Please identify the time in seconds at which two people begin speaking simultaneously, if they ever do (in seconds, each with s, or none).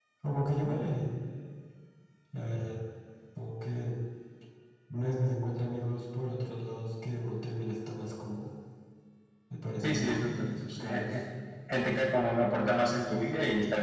9.8 s